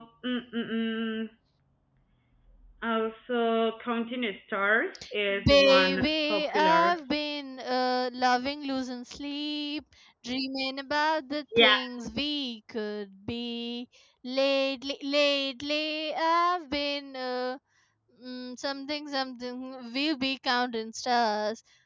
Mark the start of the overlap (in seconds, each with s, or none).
5.3 s